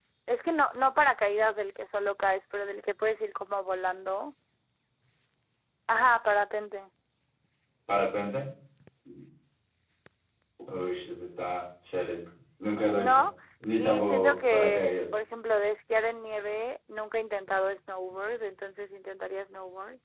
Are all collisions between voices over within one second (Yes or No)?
No